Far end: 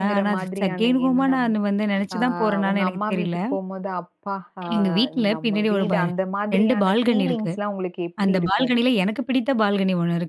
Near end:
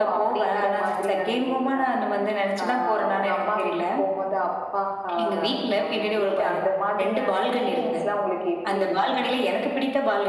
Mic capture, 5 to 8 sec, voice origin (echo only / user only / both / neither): echo only